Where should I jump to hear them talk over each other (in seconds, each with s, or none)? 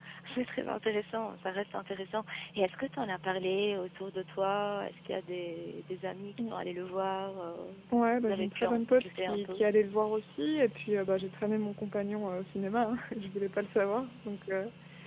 8.2 s